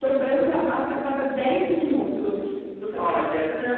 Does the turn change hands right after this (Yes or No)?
No